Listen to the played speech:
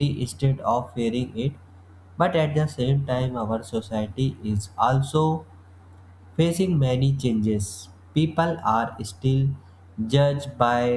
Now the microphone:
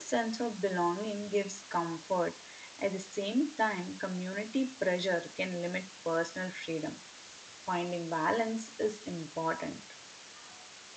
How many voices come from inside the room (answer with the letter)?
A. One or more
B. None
A